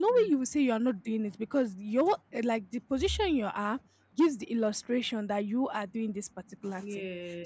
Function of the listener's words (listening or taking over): listening